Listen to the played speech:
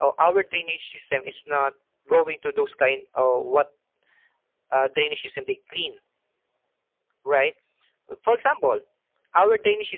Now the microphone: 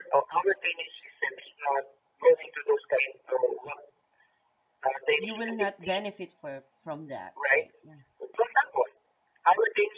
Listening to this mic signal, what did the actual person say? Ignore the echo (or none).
You will not benefit for from that, right? Yeah.